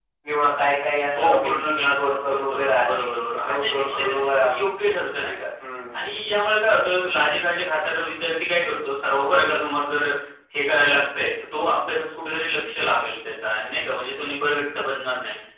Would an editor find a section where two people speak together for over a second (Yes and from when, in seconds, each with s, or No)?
Yes, from 1.2 s